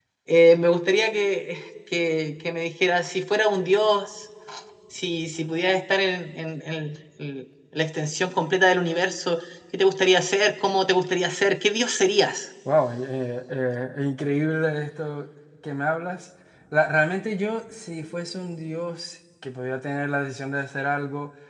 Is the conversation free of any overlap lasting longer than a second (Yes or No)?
Yes